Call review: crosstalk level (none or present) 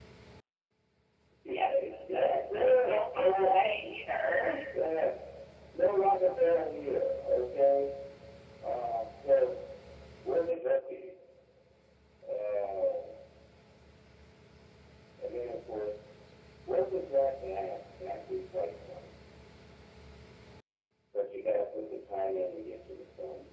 present